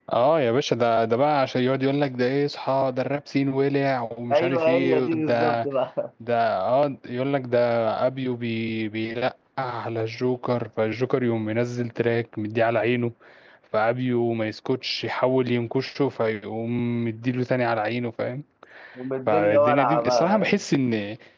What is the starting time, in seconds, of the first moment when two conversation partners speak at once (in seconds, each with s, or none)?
4.3 s